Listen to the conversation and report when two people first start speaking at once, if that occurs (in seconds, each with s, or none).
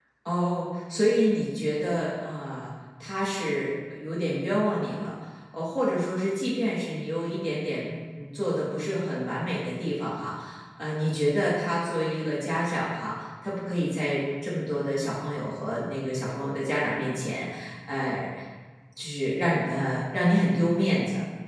none